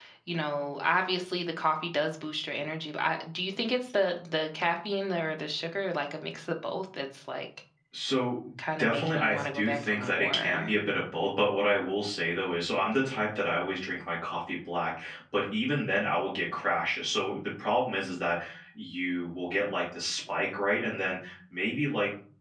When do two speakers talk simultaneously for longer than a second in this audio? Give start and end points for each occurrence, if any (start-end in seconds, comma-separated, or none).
8.8-10.7